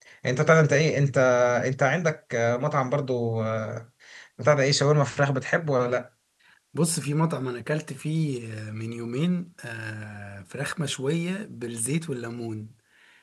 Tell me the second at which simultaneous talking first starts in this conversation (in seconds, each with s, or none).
none